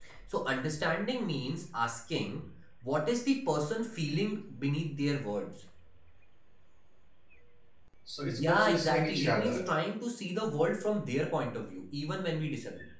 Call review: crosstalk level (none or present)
present